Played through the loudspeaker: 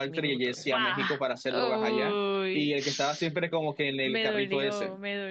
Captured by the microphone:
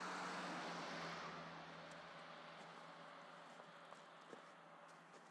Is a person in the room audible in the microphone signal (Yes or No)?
No